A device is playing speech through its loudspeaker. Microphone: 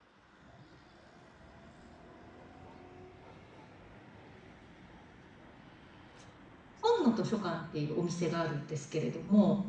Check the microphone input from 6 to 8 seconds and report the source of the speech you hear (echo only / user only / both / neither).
user only